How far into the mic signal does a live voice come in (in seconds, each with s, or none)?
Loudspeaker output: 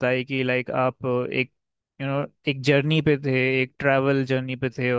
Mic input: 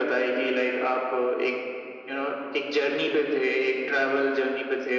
none